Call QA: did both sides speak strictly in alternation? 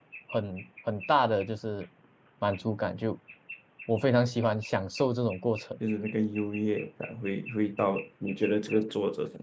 Yes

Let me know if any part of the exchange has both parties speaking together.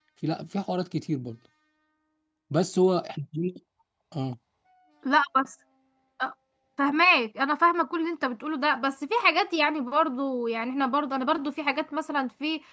No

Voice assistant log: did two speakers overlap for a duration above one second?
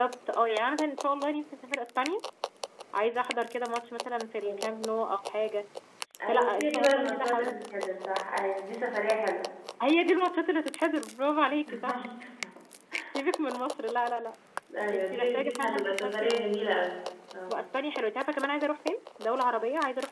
Yes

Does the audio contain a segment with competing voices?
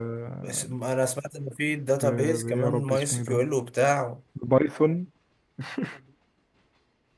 Yes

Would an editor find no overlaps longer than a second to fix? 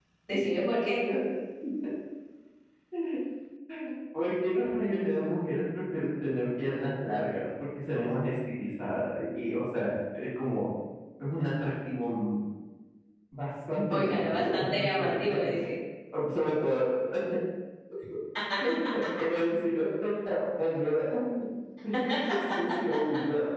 No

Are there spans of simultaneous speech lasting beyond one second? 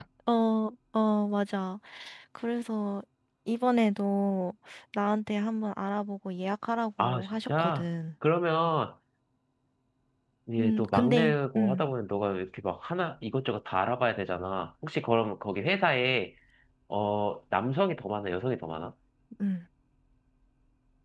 Yes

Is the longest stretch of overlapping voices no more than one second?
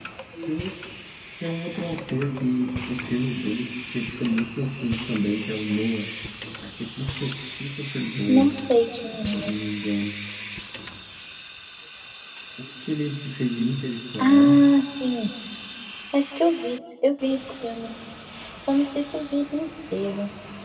Yes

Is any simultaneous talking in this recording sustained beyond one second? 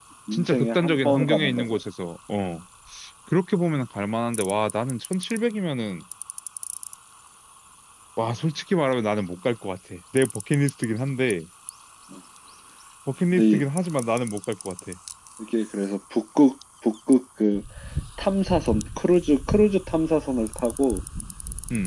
Yes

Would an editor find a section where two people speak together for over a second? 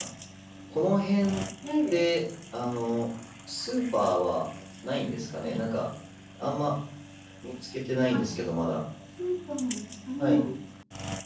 No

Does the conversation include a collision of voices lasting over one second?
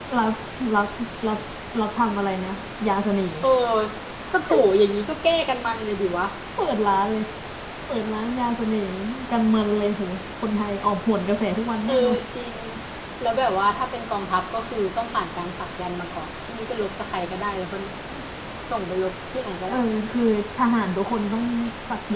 No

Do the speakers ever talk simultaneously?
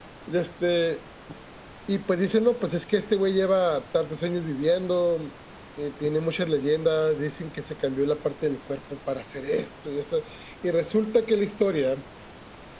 No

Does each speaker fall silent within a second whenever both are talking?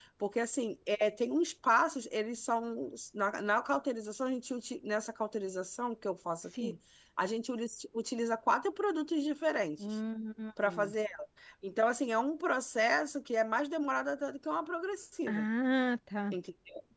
Yes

